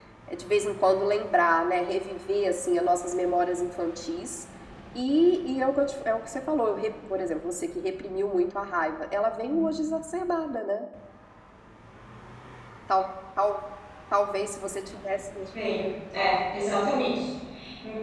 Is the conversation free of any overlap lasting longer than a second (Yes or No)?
Yes